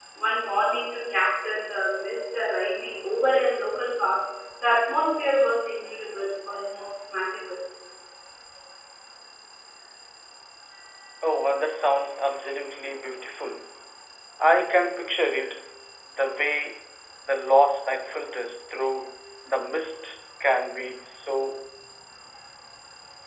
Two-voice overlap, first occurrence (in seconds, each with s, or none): none